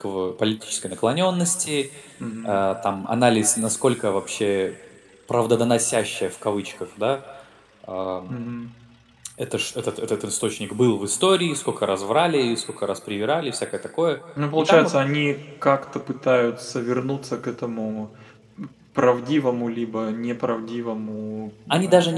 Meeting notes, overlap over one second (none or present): none